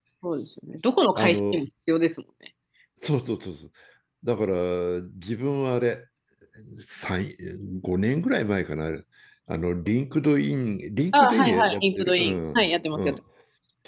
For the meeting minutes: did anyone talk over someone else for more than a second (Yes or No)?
Yes